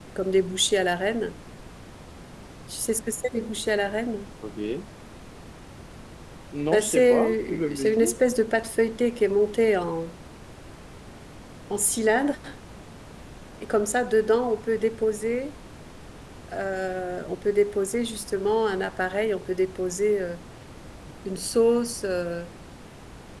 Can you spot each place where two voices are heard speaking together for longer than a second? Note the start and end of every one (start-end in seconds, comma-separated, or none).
6.7-8.1